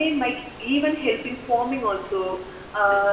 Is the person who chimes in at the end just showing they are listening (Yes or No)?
Yes